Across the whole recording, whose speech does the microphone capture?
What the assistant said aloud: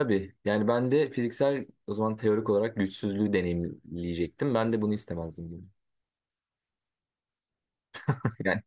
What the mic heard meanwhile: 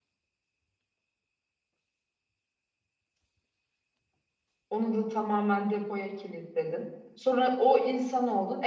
user only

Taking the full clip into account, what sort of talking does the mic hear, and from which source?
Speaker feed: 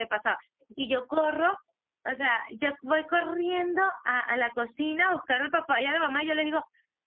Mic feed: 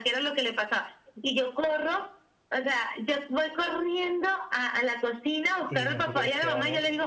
both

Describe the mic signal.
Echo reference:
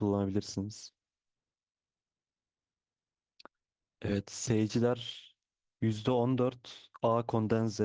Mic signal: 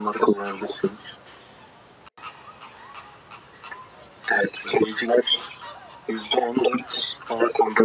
echo only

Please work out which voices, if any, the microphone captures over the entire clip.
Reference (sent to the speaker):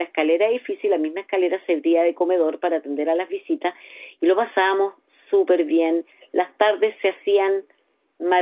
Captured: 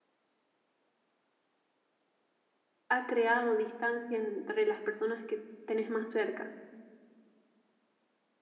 user only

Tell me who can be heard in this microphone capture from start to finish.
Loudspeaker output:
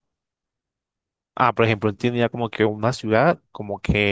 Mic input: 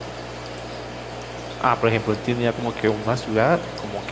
echo only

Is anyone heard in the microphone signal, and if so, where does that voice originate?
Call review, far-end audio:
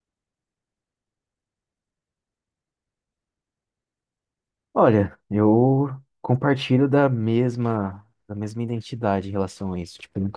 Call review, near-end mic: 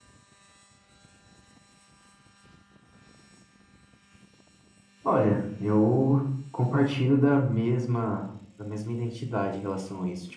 echo only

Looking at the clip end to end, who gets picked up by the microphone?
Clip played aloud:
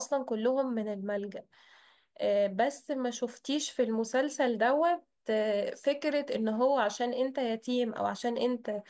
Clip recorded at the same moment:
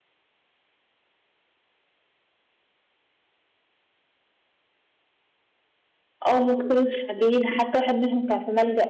user only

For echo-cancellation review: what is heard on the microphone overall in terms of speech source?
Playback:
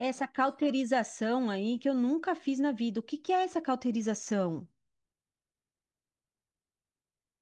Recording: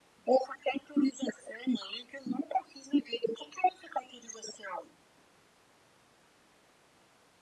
echo only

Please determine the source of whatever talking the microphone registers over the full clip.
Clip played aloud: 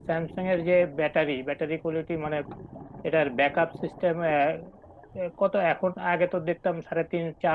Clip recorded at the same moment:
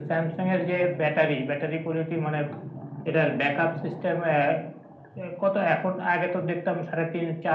echo only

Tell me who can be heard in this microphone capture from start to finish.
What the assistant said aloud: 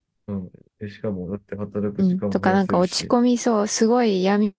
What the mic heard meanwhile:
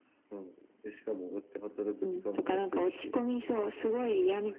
both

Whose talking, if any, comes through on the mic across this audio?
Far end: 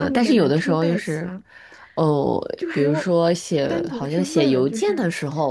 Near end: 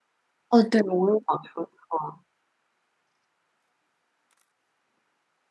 user only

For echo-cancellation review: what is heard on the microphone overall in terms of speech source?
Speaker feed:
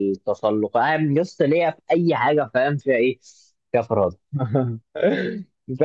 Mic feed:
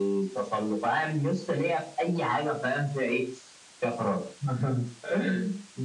echo only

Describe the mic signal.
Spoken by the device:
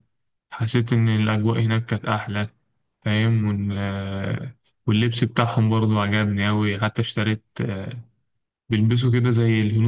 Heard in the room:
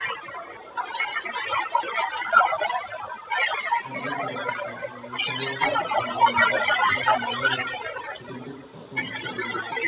both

